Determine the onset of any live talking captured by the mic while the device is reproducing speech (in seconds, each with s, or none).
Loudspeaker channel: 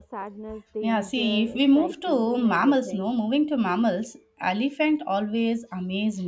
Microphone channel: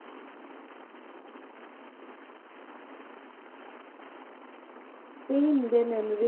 5.2 s